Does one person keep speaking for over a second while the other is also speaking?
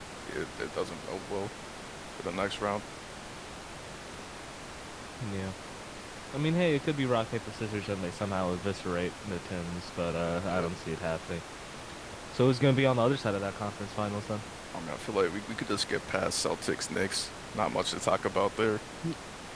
No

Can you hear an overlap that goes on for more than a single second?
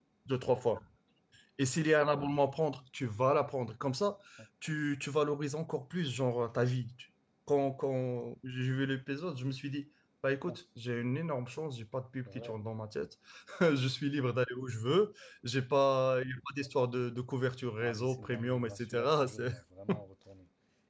Yes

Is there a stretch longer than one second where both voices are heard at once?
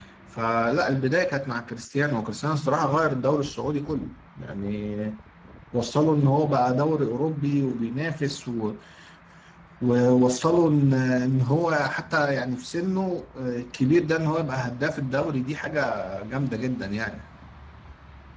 No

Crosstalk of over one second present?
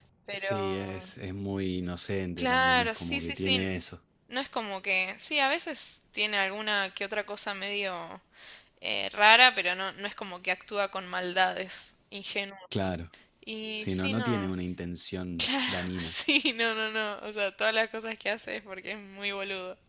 Yes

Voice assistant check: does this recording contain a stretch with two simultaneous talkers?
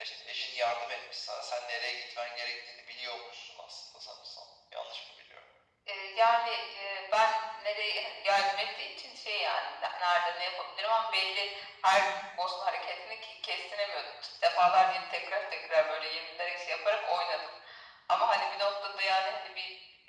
No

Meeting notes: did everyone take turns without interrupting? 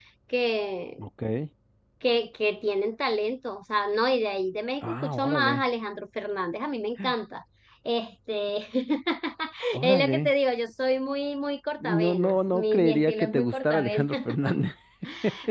No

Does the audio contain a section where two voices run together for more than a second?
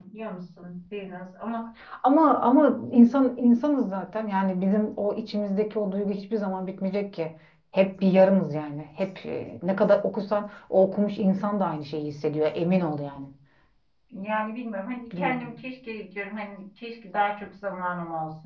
No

